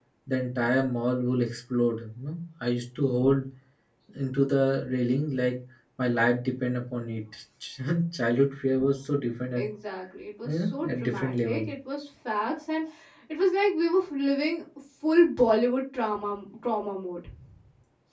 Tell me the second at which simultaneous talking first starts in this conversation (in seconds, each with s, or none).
10.4 s